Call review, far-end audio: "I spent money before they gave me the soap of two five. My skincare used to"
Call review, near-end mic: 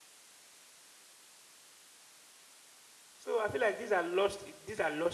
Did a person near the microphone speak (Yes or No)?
Yes